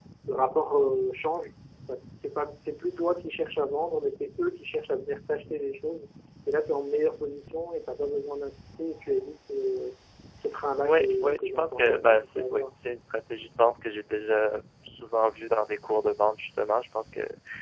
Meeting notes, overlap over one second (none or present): present